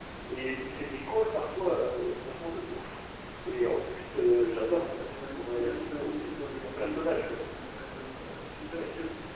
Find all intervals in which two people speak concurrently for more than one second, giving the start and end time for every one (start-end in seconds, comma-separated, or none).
4.7-7.4